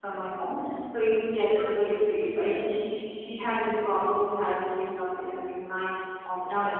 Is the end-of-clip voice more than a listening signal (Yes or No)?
No